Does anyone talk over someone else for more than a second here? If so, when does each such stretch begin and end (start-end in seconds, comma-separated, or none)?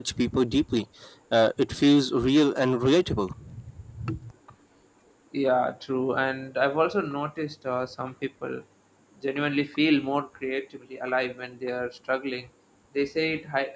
none